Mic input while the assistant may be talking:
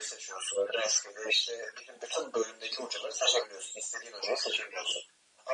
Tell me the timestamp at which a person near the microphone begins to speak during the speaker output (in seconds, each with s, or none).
none